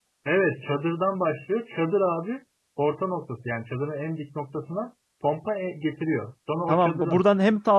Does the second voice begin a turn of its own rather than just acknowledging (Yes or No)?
Yes